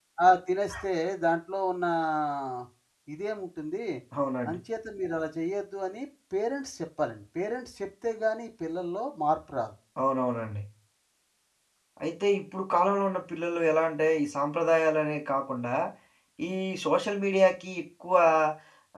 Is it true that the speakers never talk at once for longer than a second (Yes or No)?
Yes